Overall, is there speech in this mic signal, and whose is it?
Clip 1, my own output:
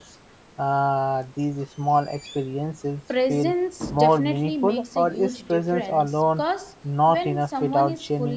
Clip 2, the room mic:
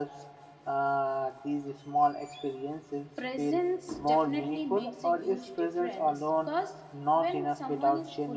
echo only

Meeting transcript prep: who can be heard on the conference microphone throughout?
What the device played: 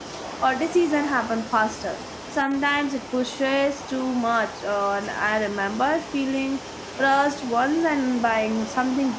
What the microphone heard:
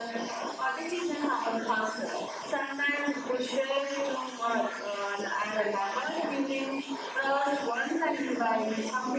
echo only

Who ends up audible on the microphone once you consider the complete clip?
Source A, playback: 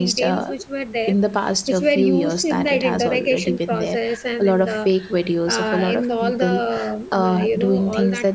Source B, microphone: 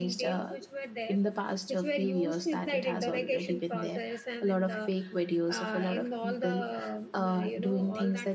echo only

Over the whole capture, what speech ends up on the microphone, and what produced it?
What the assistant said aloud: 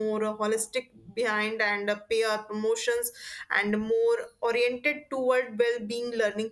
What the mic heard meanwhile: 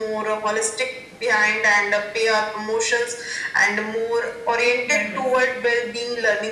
both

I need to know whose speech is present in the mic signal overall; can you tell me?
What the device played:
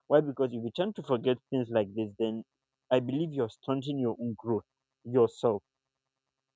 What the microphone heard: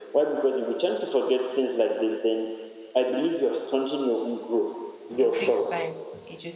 both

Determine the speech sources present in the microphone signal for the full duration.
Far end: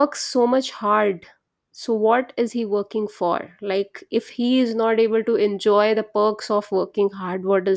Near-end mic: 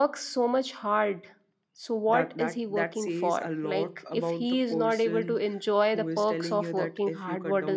both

